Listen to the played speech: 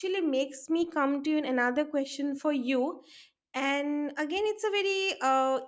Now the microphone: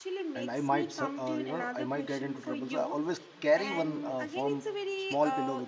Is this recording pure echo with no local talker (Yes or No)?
No